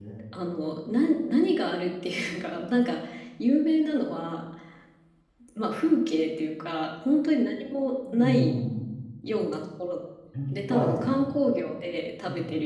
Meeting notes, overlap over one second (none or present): none